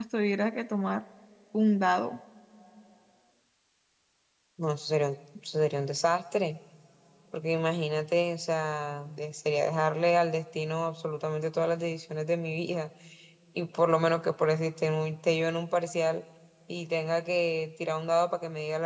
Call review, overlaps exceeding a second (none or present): none